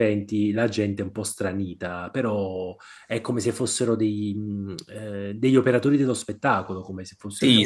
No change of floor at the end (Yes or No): No